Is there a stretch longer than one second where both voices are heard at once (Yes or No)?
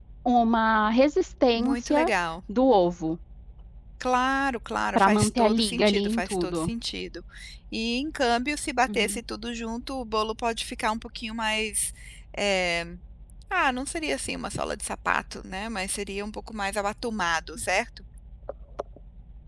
Yes